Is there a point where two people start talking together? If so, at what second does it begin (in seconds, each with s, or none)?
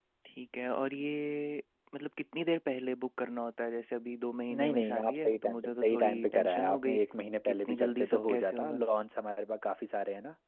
4.5 s